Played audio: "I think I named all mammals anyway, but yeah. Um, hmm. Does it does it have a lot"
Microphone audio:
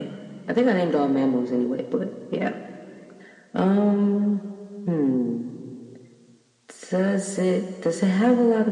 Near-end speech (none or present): none